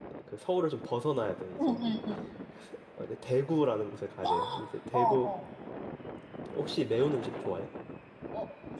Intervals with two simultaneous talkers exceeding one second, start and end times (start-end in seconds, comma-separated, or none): none